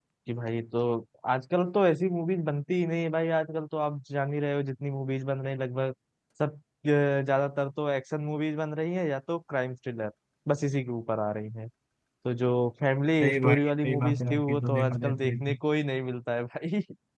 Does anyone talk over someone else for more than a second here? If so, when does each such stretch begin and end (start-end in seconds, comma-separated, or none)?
13.2-15.5